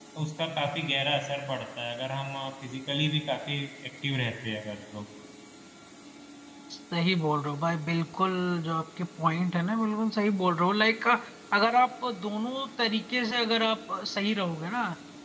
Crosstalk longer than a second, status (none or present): none